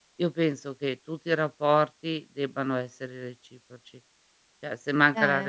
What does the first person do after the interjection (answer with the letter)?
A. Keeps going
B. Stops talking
A